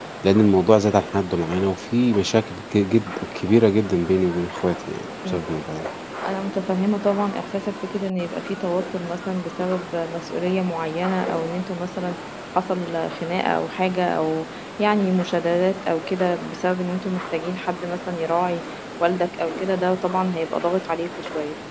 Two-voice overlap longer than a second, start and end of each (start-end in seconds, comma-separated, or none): none